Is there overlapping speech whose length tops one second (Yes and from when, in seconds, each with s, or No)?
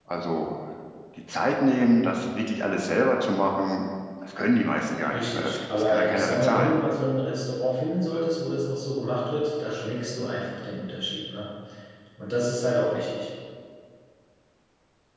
Yes, from 5.1 s